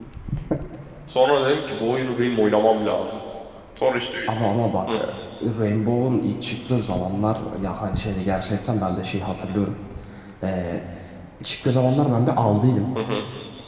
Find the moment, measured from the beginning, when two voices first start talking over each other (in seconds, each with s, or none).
none